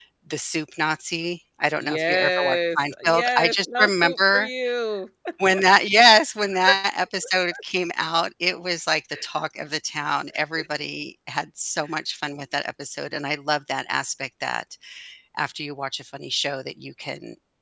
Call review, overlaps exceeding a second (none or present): present